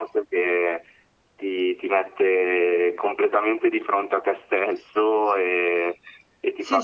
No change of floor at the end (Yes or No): Yes